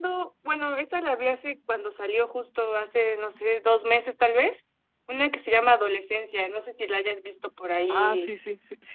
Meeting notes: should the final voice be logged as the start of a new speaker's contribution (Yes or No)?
Yes